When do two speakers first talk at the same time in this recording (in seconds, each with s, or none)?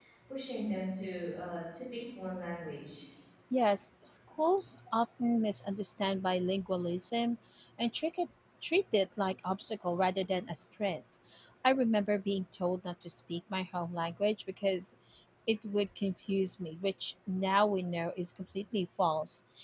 none